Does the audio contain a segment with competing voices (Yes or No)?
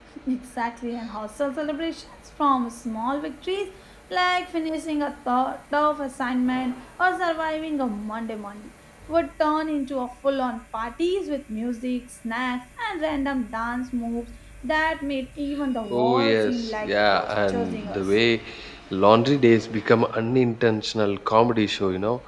Yes